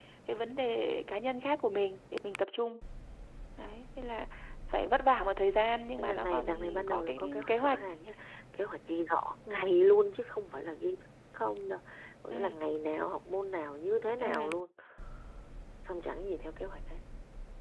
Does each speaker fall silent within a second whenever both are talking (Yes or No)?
No